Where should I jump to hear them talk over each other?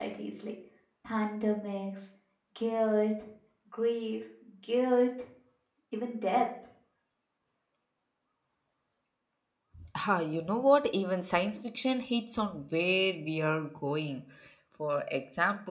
none

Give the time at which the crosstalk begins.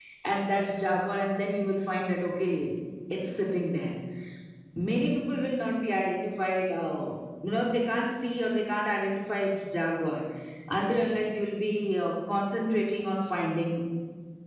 none

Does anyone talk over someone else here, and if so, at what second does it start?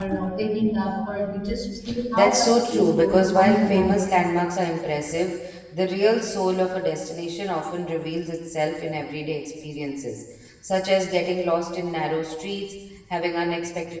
2.2 s

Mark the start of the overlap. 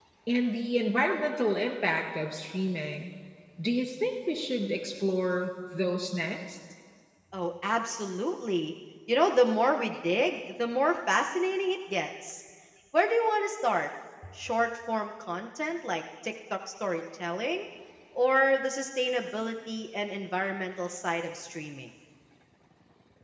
none

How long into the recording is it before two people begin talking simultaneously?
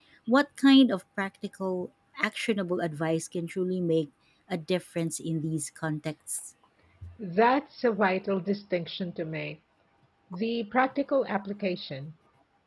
none

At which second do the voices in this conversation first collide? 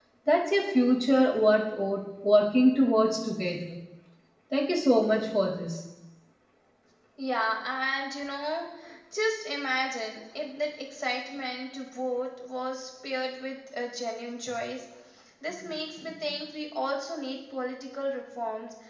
none

